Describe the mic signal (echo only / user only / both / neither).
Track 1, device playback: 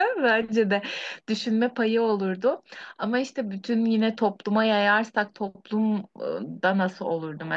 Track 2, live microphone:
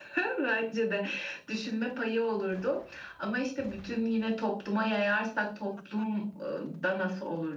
echo only